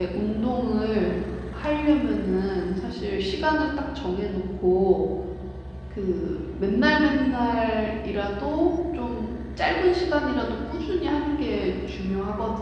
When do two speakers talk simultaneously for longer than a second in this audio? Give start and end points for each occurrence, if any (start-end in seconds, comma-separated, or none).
none